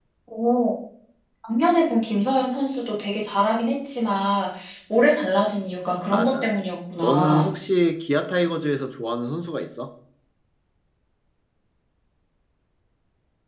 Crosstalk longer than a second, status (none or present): none